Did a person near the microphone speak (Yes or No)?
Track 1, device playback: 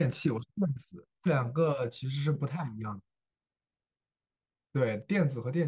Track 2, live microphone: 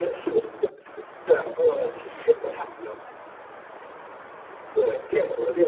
No